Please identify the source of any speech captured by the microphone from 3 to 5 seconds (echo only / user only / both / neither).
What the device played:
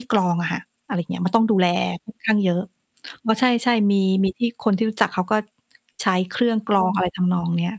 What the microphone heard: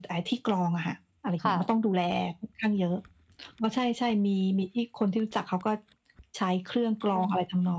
echo only